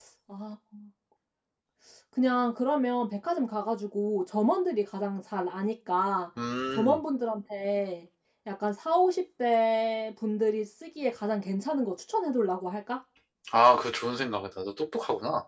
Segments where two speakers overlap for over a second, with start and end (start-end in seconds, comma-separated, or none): none